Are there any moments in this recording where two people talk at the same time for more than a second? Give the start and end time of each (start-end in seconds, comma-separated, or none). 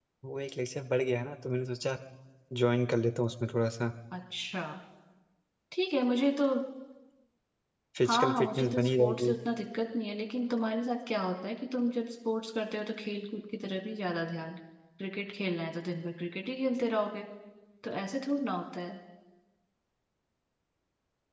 8.1-9.3